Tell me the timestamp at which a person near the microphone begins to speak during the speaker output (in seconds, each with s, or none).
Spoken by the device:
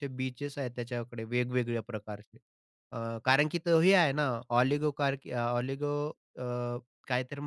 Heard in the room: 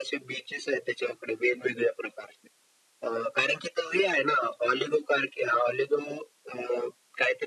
none